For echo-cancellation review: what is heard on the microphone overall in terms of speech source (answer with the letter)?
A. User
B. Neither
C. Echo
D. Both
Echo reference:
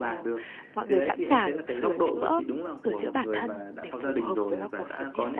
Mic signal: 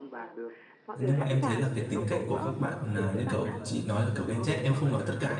D